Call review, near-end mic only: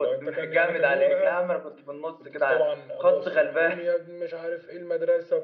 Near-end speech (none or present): none